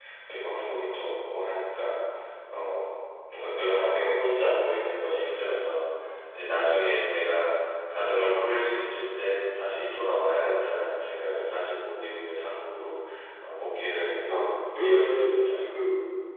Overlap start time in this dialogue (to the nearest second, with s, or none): 14 s